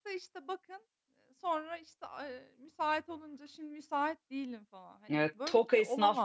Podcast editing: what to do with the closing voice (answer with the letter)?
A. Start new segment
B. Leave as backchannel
A